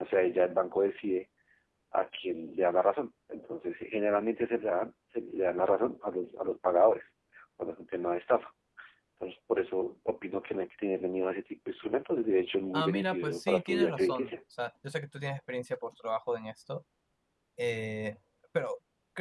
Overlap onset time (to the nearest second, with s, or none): 13 s